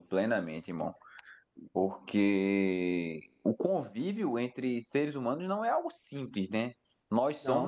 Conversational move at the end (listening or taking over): listening